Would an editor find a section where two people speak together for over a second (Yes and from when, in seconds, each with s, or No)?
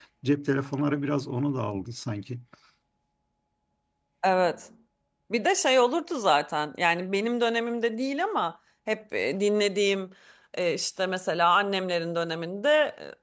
No